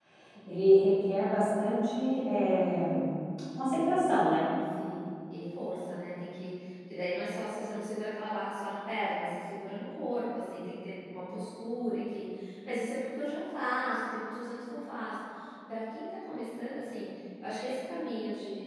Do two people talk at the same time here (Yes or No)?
No